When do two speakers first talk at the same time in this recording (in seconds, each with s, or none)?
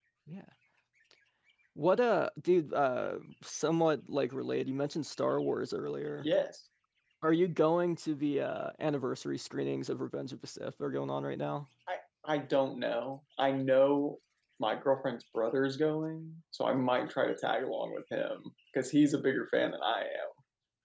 none